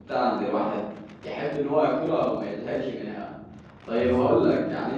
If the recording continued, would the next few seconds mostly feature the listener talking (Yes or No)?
No